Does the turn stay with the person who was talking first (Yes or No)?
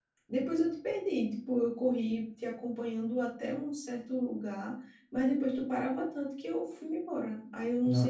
No